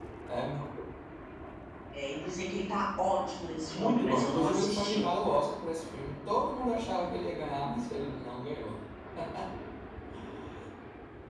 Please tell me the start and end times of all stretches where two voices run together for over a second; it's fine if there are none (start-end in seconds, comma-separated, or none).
3.7-5.1